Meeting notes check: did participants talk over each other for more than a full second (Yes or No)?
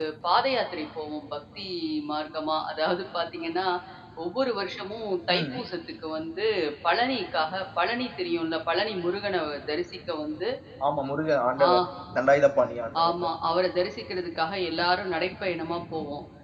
No